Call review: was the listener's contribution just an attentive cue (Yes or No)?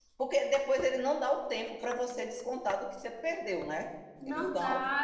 No